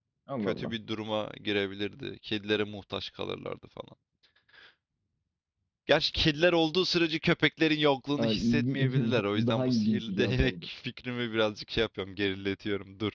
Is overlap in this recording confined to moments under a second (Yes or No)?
No